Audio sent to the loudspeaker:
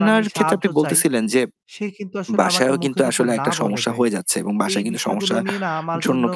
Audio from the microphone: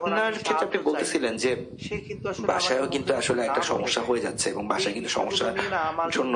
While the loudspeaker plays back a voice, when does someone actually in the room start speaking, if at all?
none

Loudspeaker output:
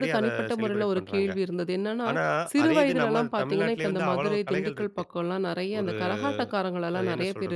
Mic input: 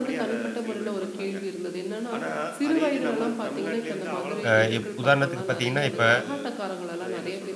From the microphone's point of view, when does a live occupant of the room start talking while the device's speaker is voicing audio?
4.5 s

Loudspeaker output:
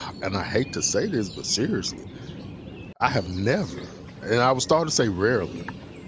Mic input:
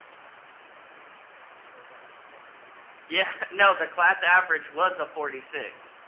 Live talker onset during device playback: 3.1 s

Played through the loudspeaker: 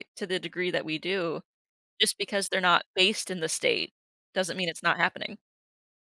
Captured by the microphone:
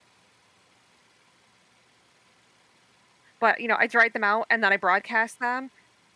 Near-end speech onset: 3.4 s

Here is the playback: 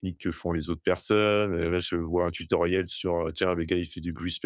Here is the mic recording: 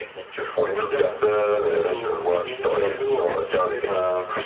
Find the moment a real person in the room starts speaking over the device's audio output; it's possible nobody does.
0.7 s

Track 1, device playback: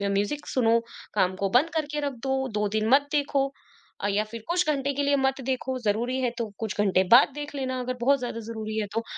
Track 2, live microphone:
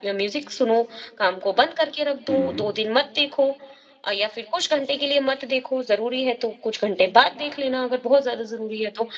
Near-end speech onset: 2.3 s

